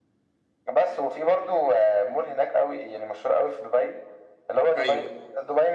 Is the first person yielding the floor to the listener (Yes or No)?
No